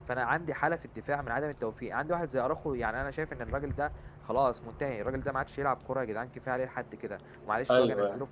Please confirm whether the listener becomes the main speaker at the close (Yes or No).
No